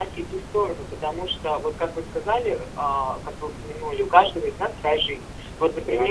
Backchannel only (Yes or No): Yes